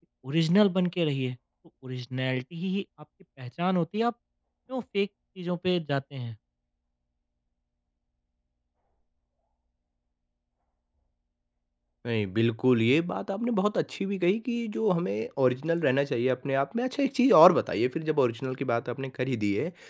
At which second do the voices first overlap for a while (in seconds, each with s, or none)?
none